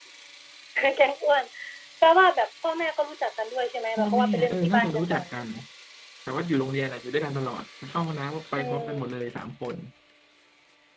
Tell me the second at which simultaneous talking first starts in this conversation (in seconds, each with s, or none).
4.0 s